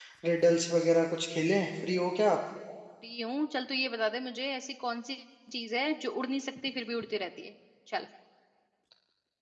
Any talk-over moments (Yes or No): No